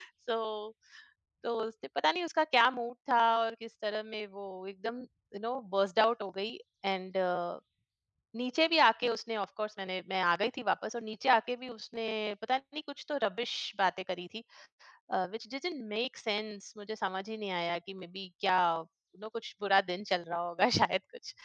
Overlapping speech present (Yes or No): No